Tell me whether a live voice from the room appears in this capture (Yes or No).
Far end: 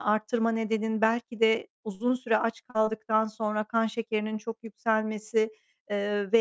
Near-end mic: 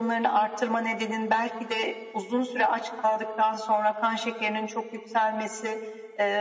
No